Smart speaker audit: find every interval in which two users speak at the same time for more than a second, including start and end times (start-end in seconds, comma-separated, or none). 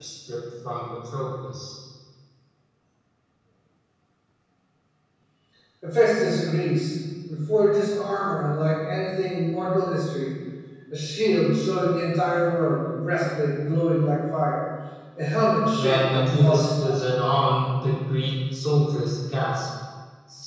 15.8-16.9